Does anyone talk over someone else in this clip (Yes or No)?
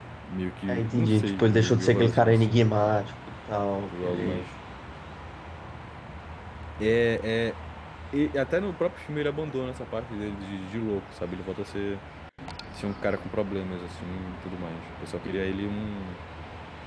Yes